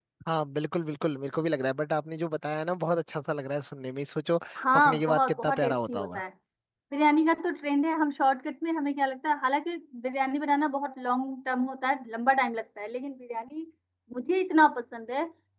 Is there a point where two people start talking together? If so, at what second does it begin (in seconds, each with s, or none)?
4.5 s